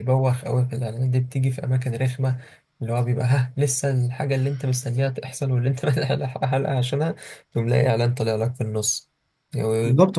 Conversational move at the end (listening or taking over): taking over